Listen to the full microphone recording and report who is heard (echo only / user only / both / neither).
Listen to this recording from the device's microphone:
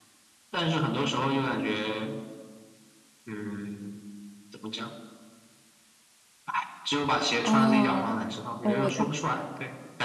both